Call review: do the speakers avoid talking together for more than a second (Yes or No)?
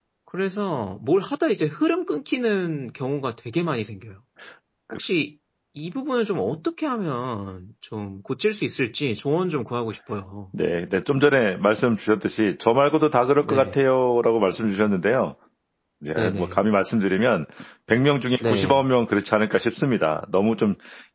Yes